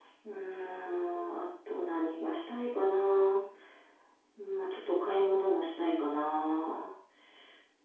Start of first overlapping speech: none

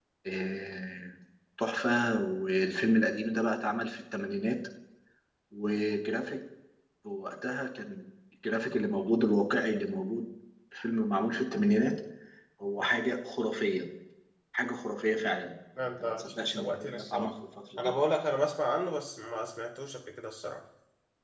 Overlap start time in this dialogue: 16 s

